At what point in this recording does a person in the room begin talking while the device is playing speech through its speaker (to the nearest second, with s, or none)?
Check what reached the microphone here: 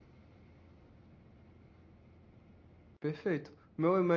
3 s